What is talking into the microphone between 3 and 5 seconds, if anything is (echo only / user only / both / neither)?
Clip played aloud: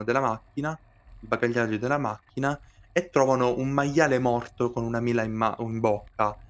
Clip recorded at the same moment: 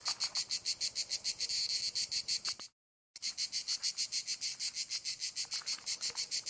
neither